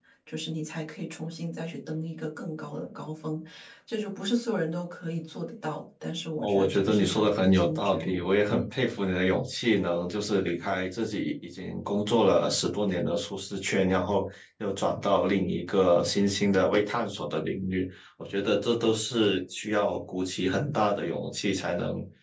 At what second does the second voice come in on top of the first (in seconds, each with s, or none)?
6.4 s